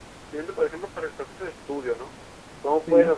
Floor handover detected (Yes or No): No